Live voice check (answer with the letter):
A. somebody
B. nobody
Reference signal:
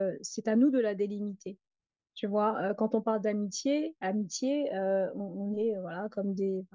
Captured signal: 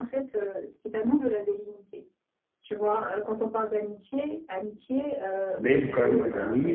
A